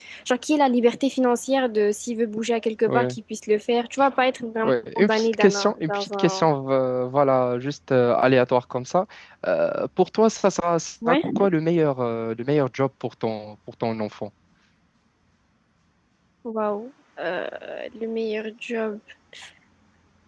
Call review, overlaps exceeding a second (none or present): present